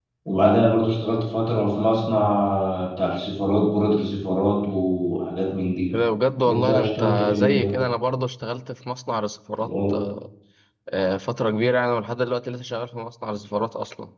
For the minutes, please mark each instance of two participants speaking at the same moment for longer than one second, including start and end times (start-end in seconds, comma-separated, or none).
6.5-7.8